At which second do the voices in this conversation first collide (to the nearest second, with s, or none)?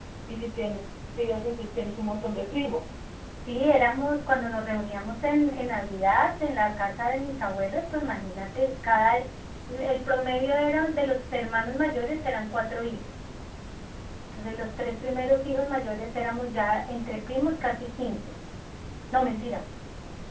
none